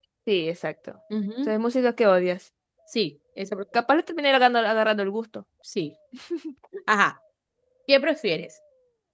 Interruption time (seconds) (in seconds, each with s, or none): none